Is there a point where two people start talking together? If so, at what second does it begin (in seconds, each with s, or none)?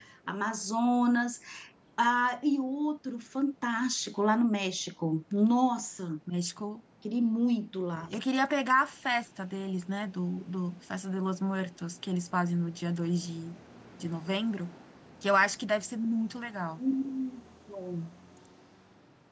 none